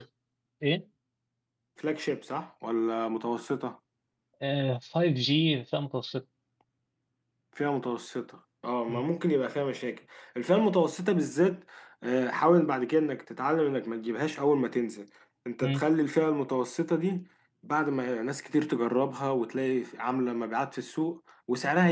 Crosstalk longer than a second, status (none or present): none